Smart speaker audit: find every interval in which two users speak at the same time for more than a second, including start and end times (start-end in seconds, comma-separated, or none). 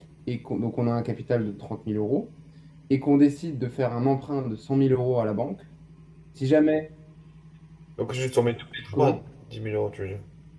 none